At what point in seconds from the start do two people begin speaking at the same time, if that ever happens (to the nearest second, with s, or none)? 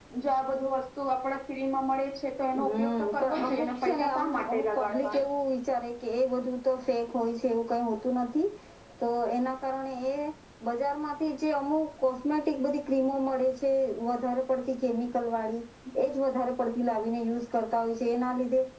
3 s